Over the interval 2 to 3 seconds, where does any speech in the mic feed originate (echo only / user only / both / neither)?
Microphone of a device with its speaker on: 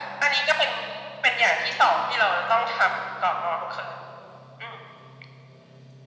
echo only